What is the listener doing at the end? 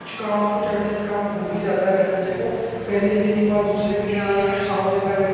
listening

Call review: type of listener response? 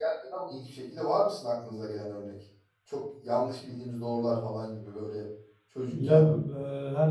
taking over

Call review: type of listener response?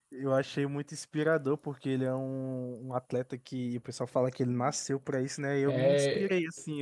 listening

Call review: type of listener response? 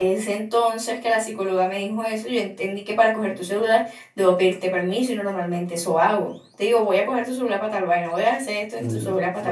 taking over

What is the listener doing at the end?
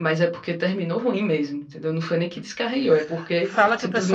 taking over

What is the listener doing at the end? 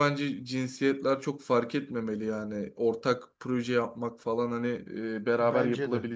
listening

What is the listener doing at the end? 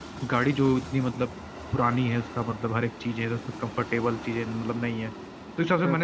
listening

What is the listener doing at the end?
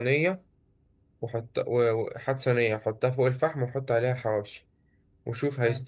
listening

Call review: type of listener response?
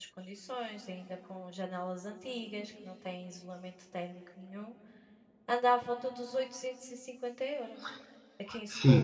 taking over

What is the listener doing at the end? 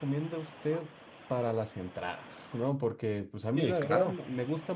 listening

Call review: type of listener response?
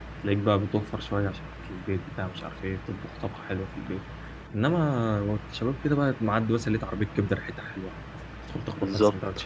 taking over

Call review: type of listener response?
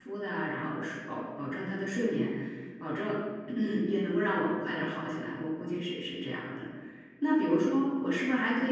listening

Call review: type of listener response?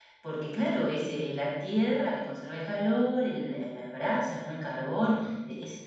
listening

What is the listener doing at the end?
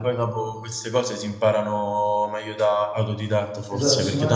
taking over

